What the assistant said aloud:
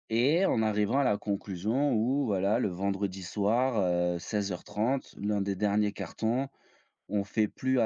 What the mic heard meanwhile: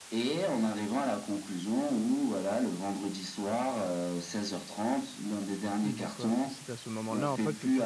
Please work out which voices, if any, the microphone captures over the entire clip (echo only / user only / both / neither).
both